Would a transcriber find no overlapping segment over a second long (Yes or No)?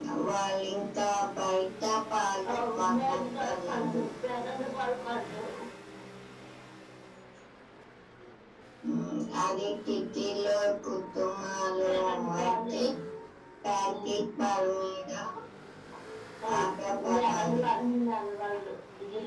No